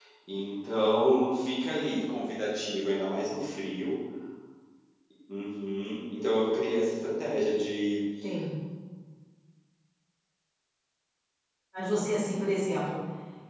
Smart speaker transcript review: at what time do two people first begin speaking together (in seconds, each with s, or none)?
none